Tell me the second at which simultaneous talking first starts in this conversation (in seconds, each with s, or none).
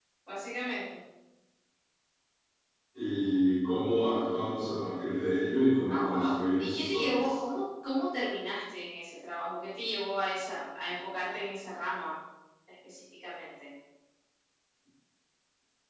5.9 s